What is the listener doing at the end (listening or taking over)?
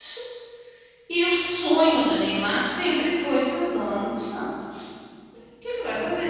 taking over